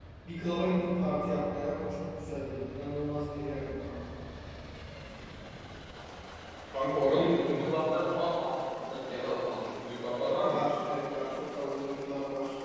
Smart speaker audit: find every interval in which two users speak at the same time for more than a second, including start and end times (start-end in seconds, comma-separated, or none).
none